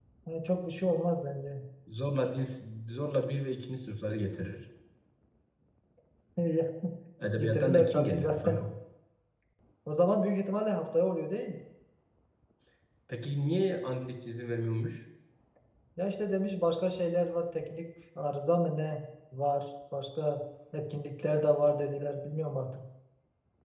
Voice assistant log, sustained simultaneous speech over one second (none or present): present